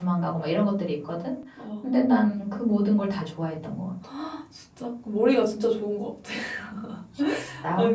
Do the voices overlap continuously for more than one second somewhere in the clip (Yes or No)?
No